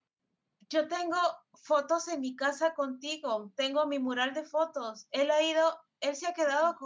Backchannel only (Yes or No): Yes